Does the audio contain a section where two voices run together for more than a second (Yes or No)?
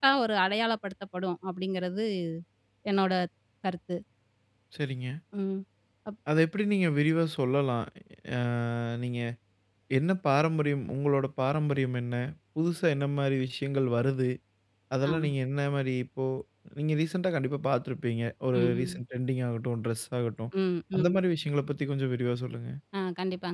No